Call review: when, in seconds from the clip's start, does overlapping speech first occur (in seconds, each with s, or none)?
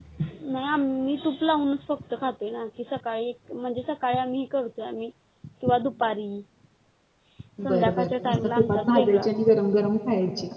7.6 s